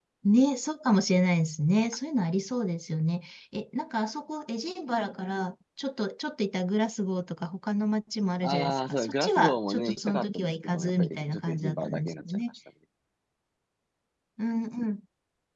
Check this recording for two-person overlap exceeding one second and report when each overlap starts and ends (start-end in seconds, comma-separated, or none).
8.4-12.5